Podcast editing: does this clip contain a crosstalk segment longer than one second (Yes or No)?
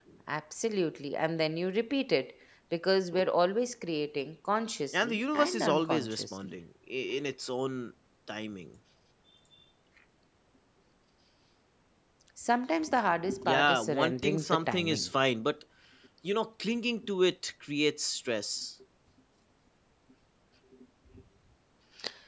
Yes